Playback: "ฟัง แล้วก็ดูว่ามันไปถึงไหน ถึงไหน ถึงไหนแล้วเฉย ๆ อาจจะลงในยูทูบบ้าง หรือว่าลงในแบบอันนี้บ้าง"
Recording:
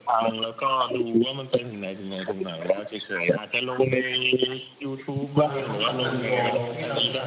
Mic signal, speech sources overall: both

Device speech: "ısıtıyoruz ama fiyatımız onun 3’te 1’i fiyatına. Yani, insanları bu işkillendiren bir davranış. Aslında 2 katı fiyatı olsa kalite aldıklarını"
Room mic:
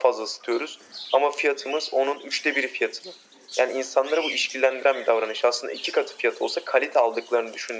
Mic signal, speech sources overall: echo only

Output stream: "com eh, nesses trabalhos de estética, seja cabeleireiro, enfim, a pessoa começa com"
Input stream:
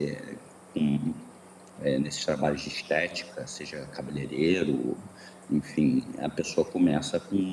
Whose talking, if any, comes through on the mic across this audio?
echo only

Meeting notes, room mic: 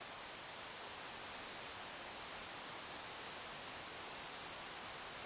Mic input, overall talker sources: neither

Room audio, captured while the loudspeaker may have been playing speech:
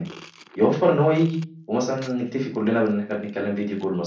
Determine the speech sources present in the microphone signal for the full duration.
echo only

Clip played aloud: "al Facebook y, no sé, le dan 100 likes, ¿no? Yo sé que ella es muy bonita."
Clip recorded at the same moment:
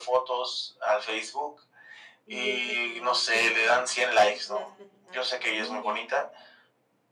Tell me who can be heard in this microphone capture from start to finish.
both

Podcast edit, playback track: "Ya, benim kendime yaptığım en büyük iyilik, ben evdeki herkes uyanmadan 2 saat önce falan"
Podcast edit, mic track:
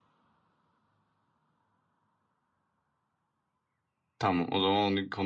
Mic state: user only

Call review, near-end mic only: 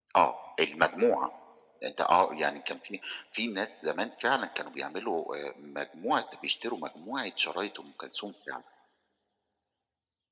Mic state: echo only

